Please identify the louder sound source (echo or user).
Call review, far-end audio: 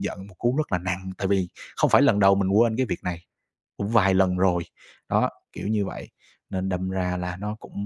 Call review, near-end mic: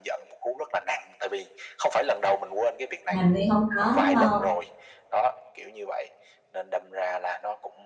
user